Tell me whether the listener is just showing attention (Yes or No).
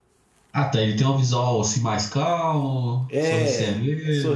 No